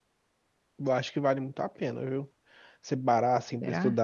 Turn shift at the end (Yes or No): No